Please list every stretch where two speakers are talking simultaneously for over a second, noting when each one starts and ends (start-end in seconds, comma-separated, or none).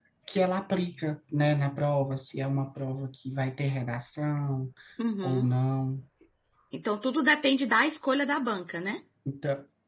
none